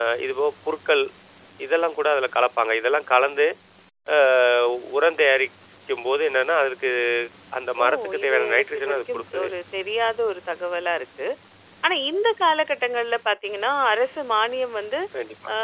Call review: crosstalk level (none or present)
present